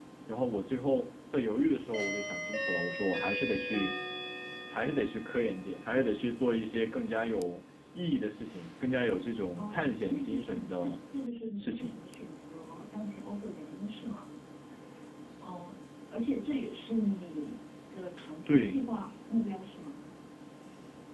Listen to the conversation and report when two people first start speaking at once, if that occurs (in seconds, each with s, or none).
9.6 s